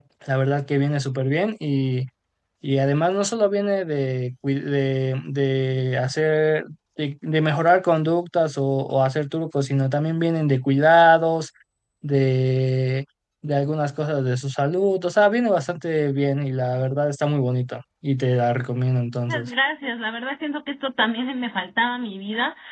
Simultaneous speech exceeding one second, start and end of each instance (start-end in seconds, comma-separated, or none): none